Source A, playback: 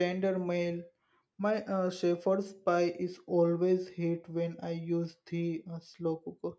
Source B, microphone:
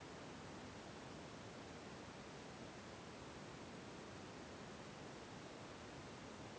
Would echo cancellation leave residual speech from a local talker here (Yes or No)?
No